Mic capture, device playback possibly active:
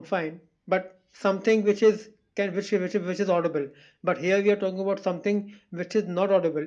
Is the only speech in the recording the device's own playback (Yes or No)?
Yes